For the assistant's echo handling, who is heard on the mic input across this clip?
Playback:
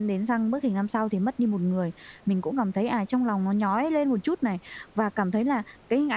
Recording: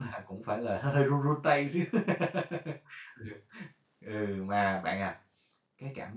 user only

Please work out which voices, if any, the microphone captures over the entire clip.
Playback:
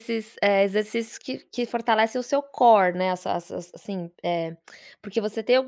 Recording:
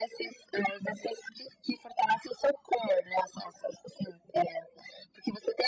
echo only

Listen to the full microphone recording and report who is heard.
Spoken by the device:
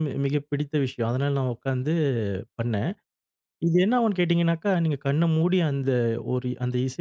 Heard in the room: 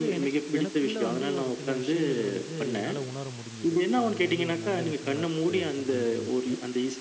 both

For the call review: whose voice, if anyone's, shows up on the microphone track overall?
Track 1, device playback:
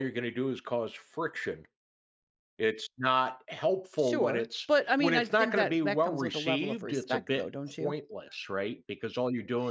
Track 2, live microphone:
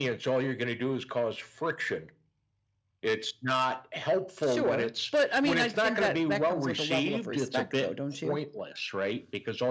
echo only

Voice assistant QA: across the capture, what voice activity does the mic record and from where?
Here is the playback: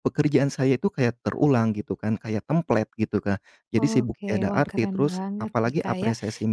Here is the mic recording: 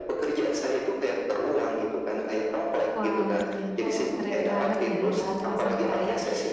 both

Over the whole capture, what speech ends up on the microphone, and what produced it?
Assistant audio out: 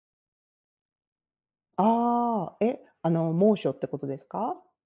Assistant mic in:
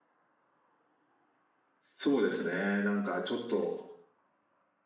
user only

